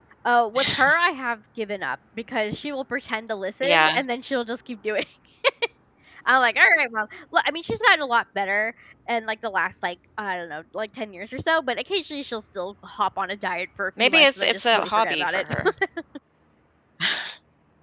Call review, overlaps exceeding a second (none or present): present